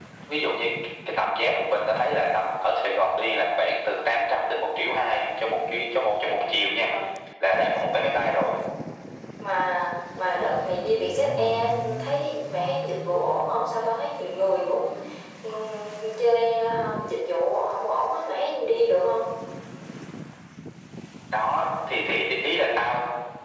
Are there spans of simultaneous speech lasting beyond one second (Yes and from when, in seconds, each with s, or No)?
No